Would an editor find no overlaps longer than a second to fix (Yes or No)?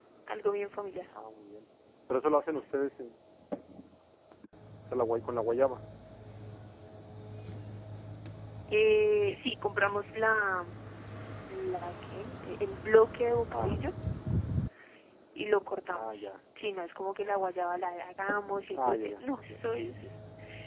No